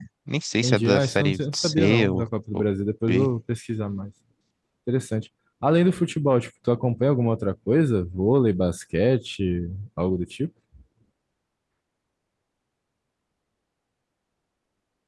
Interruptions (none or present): present